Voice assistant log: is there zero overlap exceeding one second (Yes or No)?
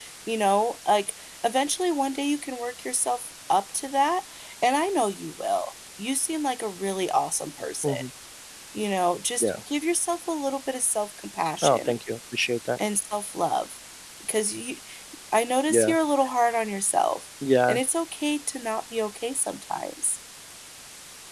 Yes